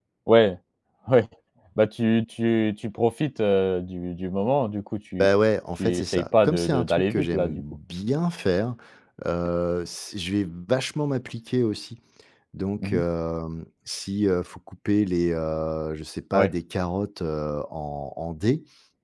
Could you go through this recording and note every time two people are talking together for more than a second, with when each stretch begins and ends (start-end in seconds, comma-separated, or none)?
5.8-7.6